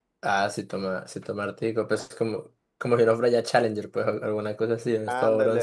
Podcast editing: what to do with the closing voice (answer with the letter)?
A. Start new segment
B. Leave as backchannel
A